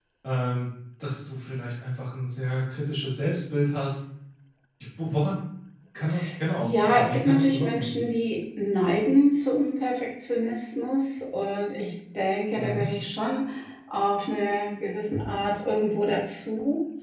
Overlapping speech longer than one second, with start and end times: 6.6-8.0

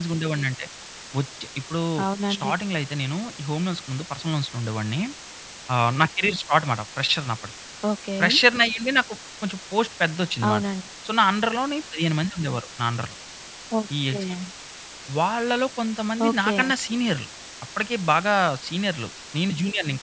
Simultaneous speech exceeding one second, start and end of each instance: none

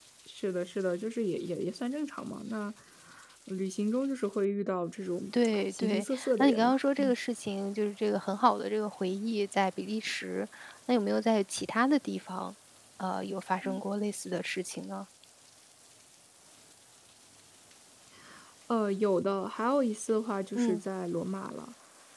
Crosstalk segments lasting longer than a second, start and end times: 5.4-7.1

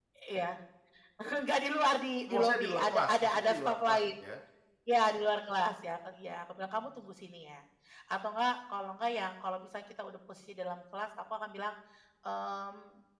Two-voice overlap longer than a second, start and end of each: 2.3-4.0

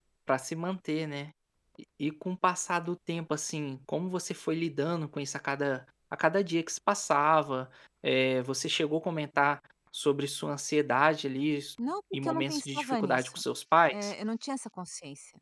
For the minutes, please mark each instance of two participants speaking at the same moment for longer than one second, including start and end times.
12.1-13.4

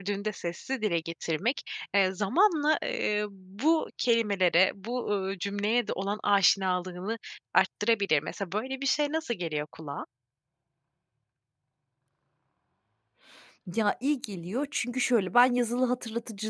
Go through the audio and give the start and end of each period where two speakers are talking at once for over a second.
none

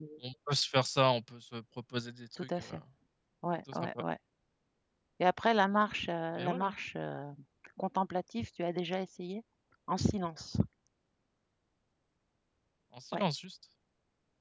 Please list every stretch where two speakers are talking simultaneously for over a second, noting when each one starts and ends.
none

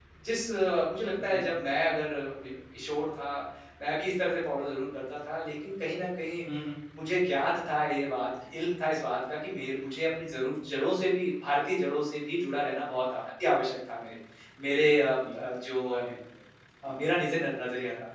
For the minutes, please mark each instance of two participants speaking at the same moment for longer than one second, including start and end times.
none

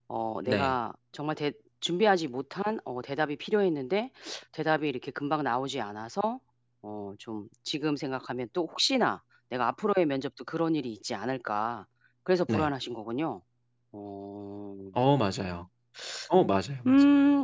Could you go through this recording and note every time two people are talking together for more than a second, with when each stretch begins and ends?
none

